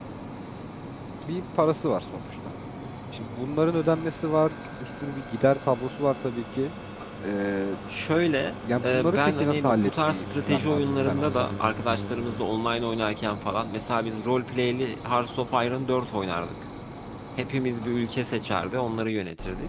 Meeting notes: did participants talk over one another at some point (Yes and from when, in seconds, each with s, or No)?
Yes, from 8.6 s